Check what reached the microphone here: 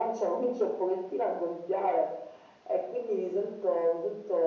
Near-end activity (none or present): none